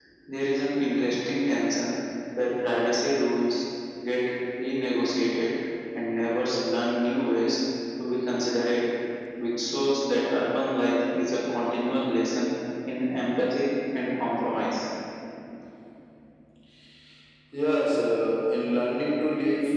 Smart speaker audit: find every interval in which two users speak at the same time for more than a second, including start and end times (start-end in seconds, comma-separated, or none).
none